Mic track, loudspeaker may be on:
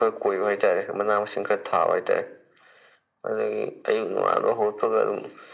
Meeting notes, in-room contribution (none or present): none